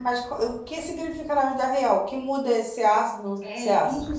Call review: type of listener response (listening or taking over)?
taking over